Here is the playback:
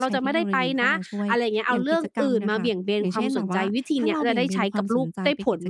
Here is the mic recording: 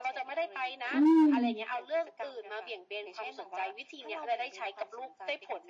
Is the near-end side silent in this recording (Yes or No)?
No